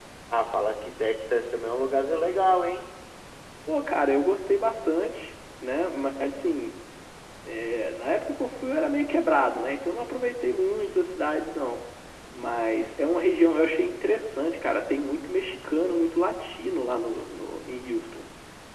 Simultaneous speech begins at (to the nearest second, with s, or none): none